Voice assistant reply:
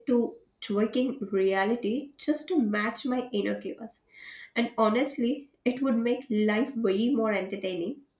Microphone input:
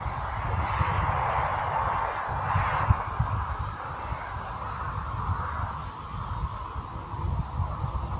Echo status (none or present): none